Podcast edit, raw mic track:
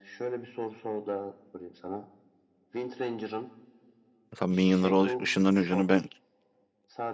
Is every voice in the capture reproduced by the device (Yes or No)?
No